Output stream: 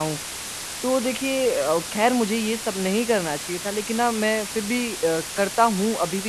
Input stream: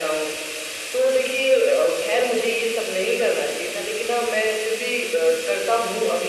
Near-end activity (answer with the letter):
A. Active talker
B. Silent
B